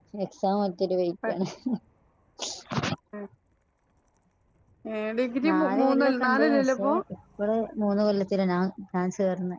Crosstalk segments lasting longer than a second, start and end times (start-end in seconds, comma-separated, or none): 5.5-6.9